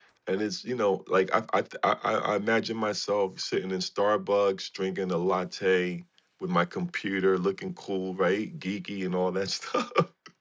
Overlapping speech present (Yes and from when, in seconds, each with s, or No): No